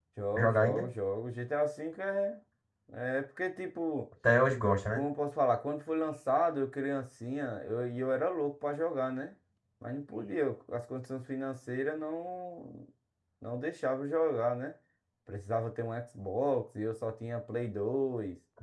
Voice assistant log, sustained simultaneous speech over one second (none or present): none